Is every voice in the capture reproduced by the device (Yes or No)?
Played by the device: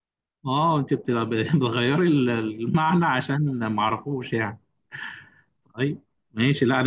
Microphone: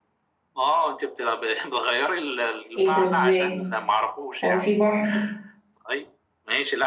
No